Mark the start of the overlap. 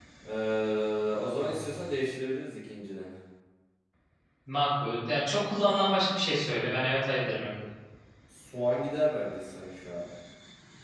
none

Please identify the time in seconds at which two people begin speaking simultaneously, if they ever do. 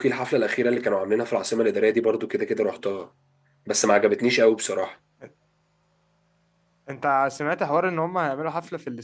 none

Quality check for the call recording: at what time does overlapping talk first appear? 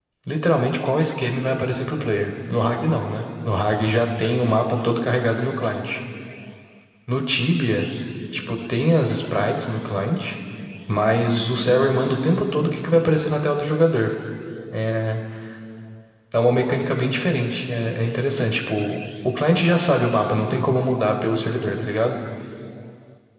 none

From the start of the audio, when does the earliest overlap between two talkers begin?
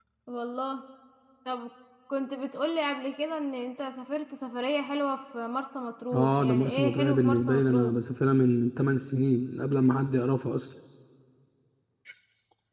6.1 s

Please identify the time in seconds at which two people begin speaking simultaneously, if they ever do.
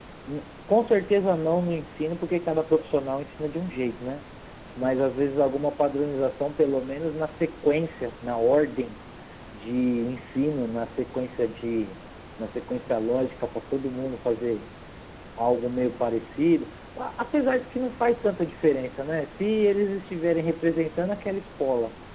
none

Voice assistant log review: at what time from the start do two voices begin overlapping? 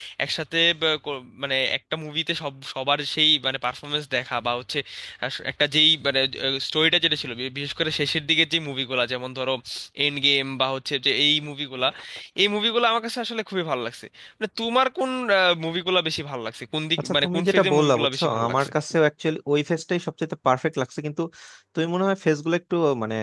17.0 s

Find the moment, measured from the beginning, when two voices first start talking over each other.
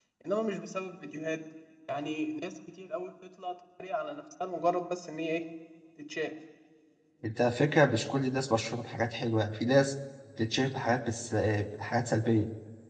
none

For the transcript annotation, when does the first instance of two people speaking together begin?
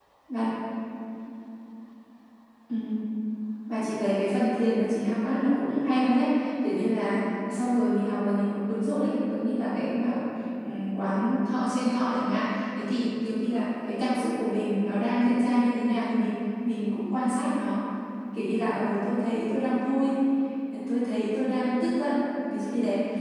none

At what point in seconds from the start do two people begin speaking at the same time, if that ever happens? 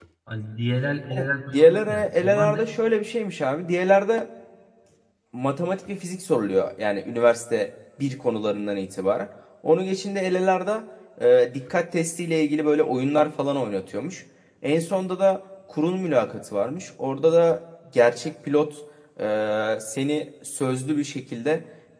1.2 s

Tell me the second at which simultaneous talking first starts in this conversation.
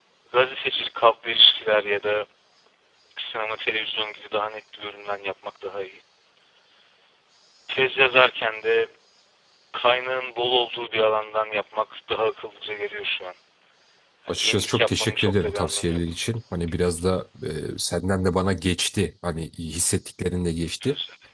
14.3 s

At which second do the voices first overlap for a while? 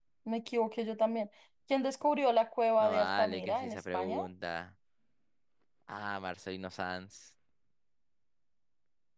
2.8 s

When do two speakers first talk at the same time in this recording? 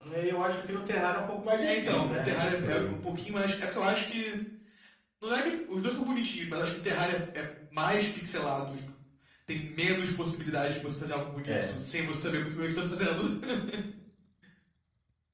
1.6 s

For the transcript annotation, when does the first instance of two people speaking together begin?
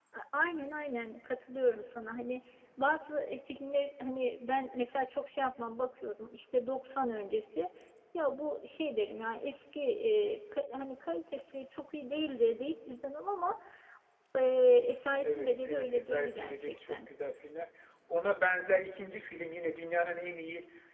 15.2 s

